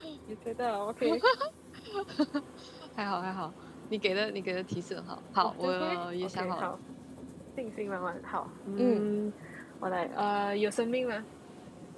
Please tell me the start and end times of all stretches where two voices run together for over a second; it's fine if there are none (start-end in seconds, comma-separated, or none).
5.4-6.7